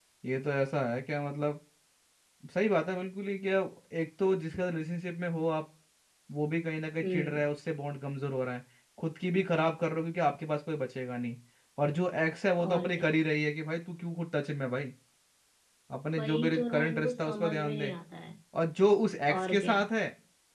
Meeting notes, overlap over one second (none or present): present